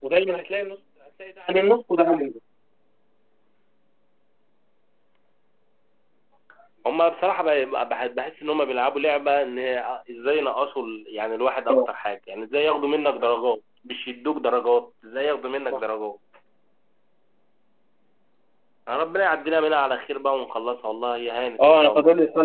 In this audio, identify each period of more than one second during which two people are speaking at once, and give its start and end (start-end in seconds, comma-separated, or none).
none